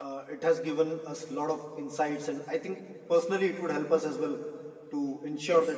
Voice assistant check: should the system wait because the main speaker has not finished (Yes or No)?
Yes